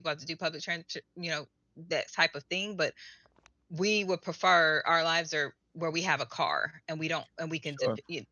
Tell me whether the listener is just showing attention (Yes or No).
No